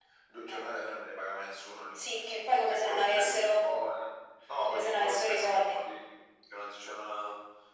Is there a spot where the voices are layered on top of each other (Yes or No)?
Yes